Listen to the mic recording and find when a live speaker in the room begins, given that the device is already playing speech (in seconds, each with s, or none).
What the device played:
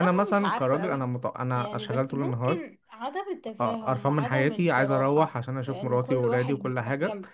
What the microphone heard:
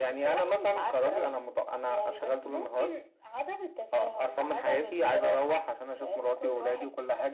none